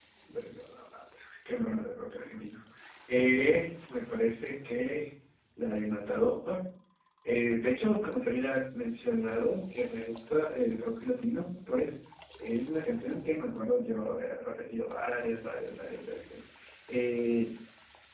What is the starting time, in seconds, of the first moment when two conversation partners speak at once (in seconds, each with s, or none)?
none